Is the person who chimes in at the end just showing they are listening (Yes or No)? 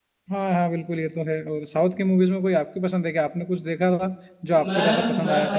No